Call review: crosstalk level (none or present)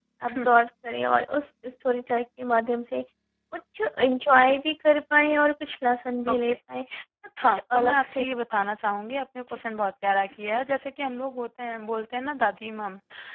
present